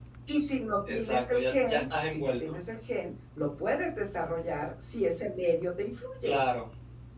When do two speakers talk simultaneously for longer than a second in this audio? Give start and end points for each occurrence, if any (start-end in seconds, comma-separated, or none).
0.9-2.3